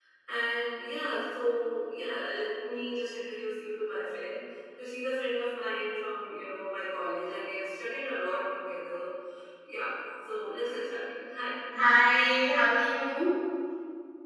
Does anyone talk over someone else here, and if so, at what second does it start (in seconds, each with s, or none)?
none